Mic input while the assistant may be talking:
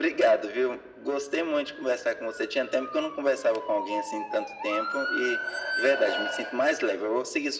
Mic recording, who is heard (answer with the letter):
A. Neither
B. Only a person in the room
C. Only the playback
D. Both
C